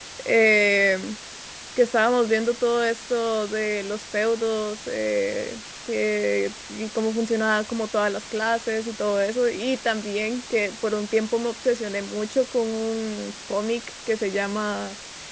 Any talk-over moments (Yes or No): No